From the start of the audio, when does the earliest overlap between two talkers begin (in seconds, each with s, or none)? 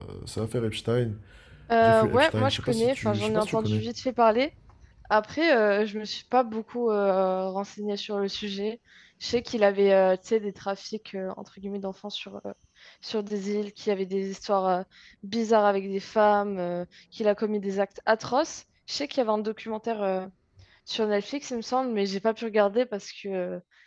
1.8 s